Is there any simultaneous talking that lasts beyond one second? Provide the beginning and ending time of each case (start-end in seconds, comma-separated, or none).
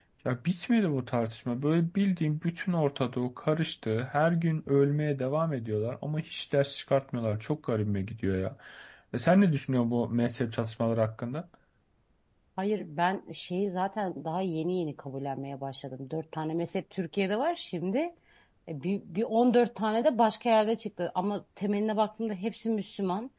none